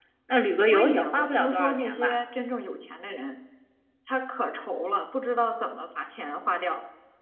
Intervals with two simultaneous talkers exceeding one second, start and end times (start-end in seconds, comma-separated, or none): 0.7-2.1